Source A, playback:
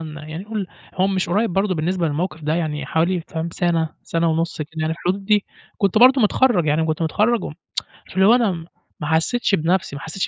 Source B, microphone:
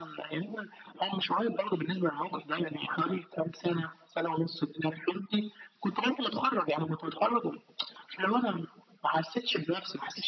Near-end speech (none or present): none